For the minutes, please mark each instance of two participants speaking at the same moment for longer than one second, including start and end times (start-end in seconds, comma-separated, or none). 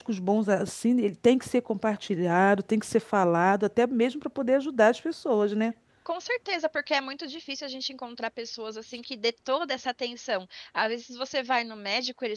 none